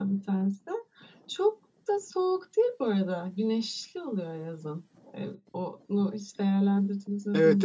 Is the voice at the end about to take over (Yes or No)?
Yes